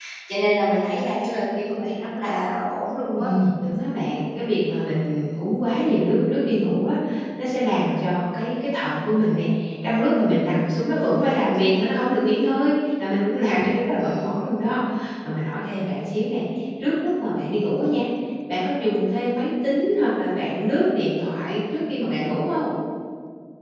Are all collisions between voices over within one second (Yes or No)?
Yes